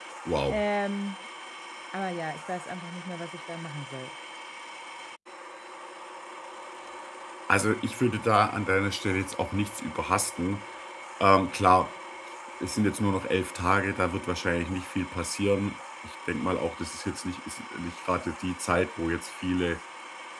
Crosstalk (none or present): none